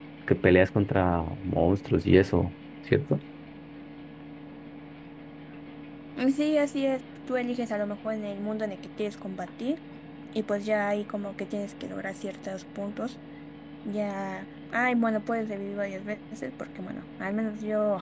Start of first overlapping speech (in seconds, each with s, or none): none